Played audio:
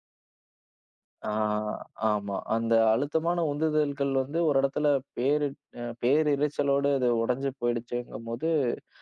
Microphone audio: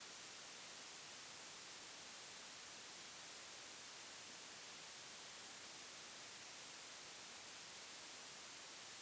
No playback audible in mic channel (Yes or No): Yes